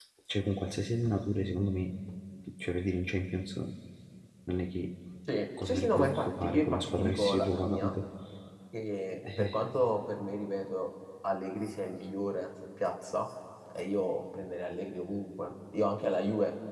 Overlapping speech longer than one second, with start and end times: 5.6-7.9

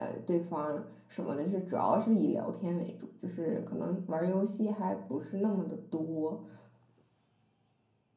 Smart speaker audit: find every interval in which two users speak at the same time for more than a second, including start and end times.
none

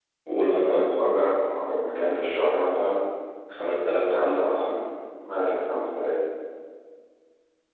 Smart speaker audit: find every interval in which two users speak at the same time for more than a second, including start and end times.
none

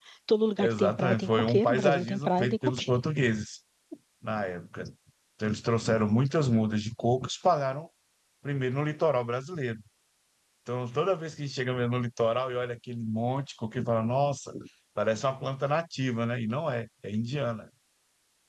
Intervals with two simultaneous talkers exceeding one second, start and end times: 0.6-2.9

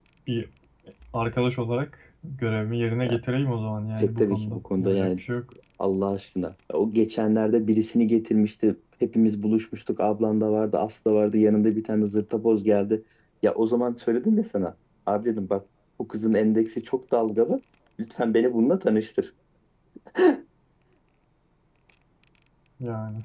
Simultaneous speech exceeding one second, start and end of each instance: 4.0-5.2

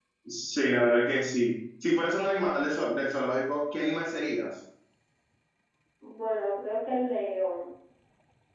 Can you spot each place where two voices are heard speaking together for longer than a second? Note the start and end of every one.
none

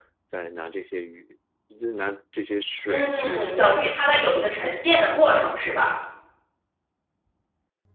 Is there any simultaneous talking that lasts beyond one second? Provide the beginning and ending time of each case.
2.9-4.3

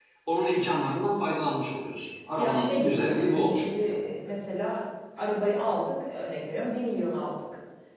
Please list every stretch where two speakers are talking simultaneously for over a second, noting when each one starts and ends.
2.4-4.0

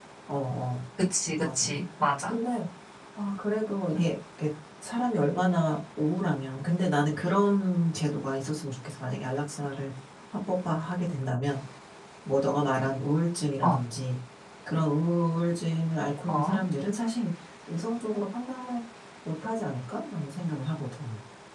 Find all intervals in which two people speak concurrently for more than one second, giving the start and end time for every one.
none

